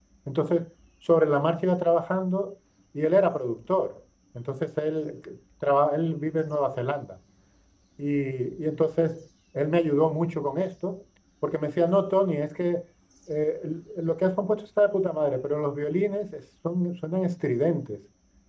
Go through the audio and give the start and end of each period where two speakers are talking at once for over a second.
none

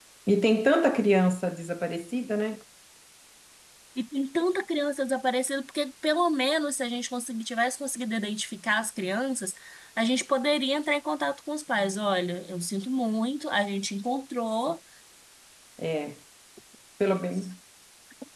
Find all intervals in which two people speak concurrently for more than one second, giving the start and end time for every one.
none

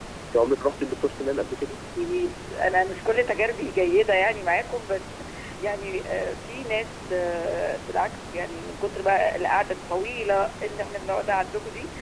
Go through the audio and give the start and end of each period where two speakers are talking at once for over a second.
none

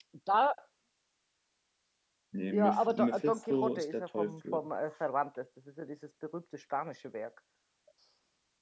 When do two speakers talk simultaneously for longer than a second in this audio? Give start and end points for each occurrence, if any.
2.5-4.6

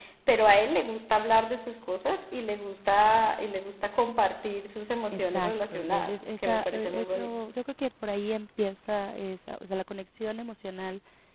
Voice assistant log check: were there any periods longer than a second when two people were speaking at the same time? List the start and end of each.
5.1-7.4

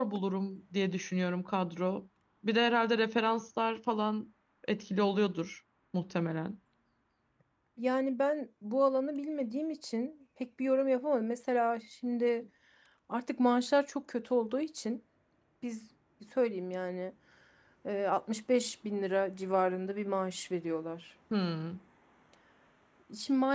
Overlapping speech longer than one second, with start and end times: none

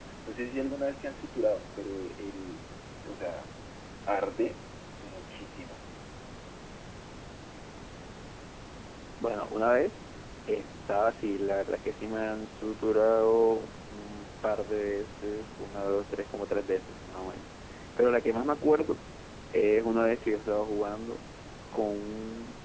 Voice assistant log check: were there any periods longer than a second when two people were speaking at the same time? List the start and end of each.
none

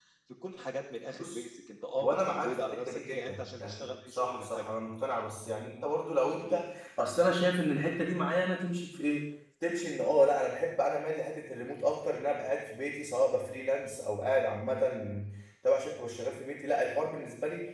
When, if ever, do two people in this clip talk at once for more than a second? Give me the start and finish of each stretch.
2.0-4.7

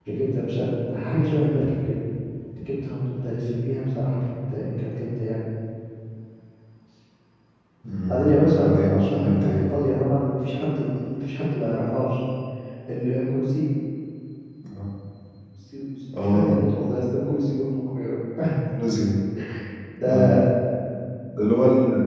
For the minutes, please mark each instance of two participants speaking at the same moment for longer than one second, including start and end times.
8.1-9.6

